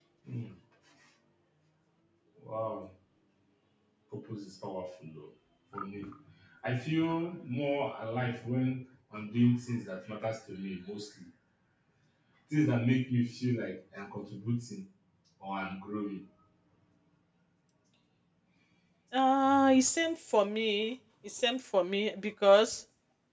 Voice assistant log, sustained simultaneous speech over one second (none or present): none